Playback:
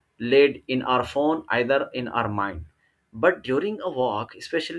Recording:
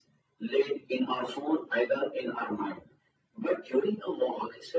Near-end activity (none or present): none